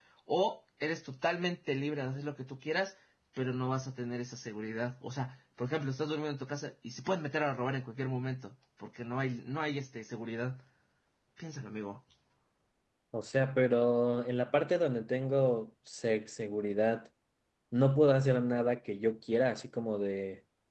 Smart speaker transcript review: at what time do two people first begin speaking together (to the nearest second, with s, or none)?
none